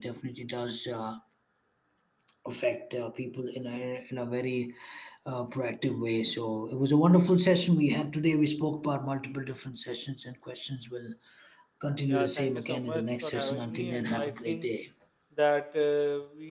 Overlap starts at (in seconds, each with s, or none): 12.1 s